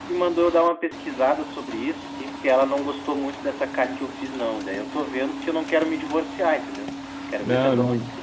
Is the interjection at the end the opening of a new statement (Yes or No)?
No